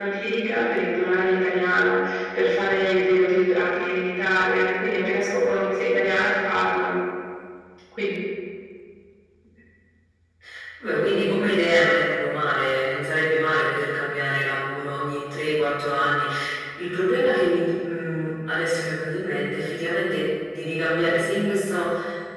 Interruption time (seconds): none

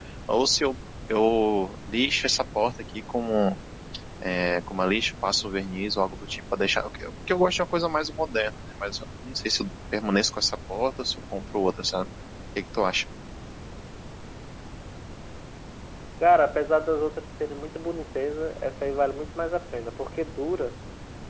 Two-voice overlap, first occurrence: none

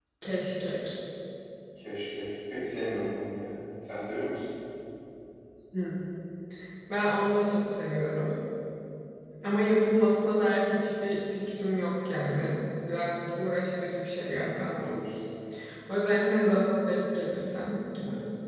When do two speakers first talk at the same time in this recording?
none

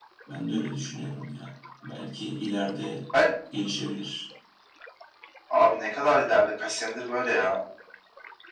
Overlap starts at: none

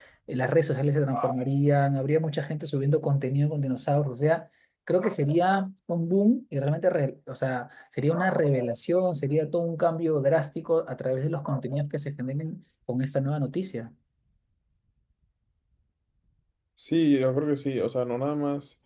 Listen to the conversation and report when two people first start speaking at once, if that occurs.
none

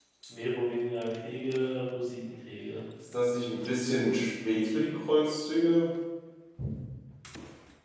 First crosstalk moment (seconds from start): none

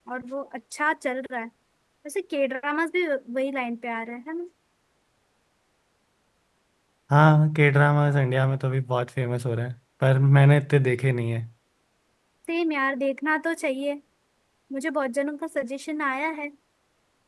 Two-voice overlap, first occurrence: none

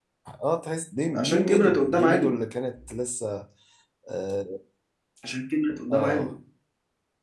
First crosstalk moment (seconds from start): 1 s

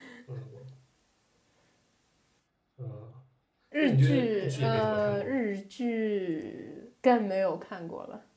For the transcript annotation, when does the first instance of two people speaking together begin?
4 s

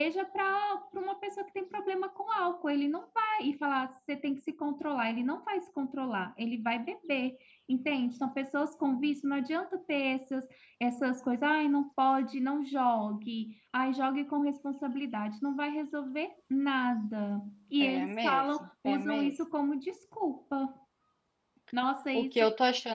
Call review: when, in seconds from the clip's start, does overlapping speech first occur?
18 s

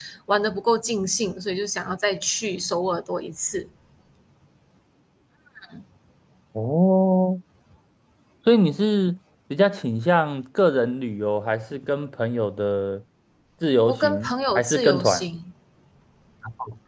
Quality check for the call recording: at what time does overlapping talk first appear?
14 s

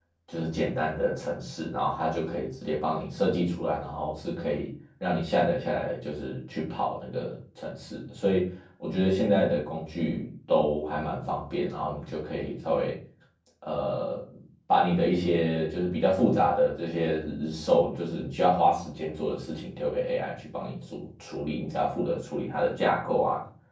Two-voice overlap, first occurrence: none

